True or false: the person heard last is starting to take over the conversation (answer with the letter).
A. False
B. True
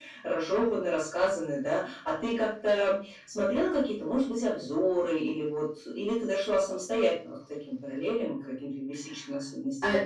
B